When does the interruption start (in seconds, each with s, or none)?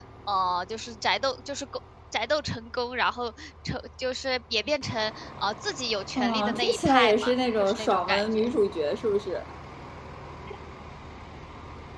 6.2 s